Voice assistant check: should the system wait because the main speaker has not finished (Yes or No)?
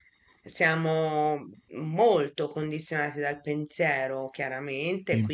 Yes